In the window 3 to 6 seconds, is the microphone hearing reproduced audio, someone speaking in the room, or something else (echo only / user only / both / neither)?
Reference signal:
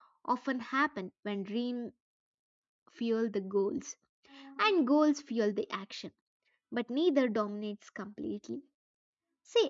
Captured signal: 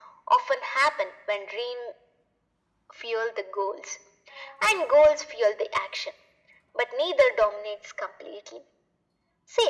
echo only